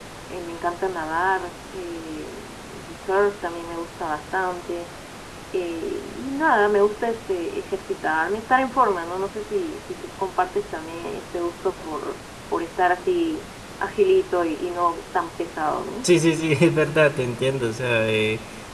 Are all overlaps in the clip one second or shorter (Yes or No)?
Yes